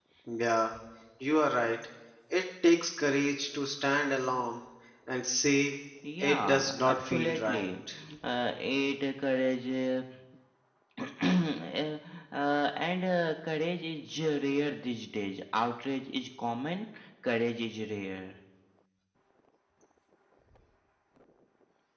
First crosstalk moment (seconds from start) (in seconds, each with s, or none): 6.2 s